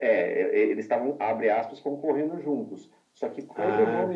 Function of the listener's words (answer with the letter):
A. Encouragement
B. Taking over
A